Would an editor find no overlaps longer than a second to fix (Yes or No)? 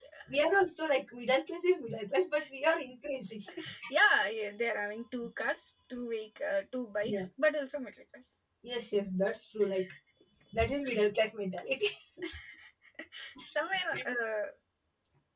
Yes